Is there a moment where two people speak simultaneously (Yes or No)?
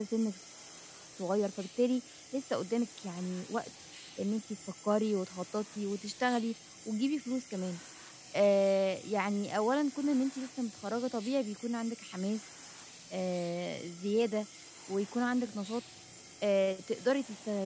No